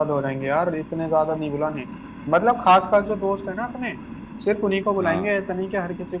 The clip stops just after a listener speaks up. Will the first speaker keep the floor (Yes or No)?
Yes